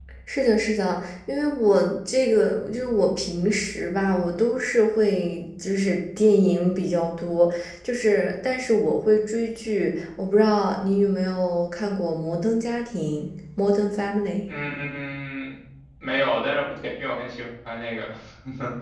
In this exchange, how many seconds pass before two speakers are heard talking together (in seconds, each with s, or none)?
none